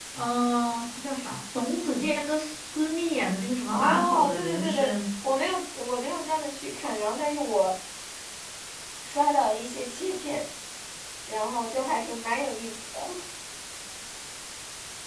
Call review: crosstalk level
present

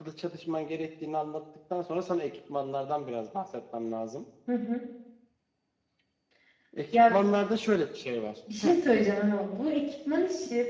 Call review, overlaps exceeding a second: none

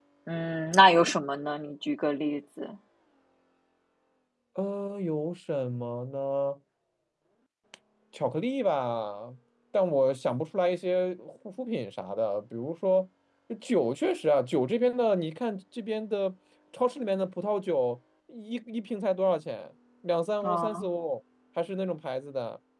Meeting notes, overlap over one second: none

